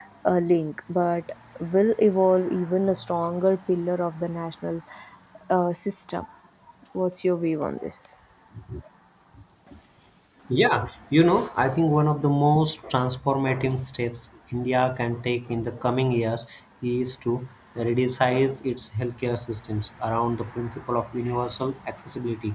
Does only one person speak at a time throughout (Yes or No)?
Yes